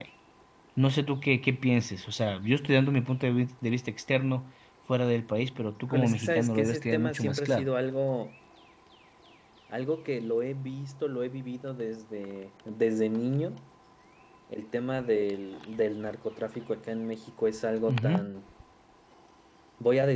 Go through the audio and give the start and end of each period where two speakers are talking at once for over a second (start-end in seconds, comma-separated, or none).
5.9-7.7